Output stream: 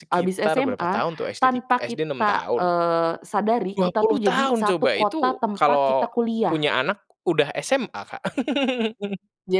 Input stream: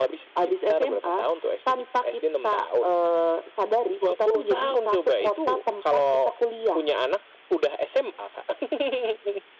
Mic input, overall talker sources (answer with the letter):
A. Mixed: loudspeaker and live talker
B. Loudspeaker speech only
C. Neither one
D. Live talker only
B